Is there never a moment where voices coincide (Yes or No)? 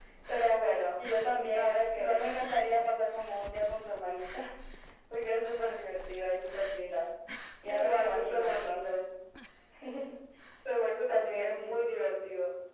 No